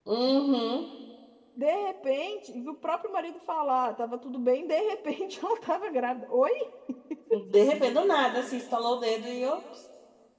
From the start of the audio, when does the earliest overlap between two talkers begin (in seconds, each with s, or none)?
none